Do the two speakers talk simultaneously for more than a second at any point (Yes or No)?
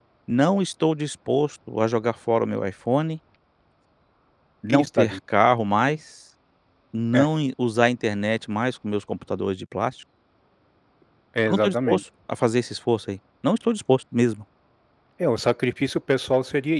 No